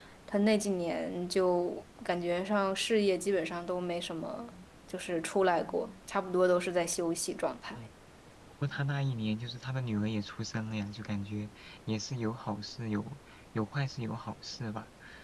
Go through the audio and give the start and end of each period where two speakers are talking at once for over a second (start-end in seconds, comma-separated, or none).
none